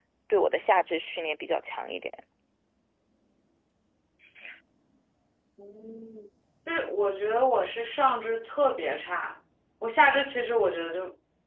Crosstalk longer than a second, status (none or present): none